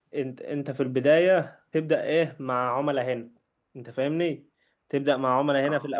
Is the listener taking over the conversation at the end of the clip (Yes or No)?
No